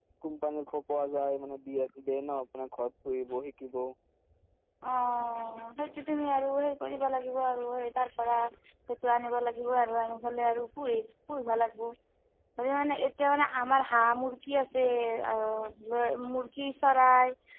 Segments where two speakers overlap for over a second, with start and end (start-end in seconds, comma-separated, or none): none